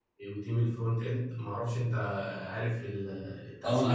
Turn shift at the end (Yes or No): Yes